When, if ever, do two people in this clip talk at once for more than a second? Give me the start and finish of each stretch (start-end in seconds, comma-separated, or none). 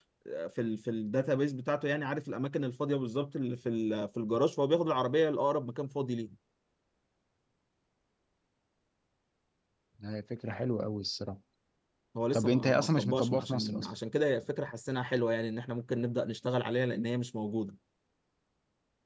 12.3-13.9